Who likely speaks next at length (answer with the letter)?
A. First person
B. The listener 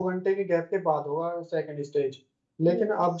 A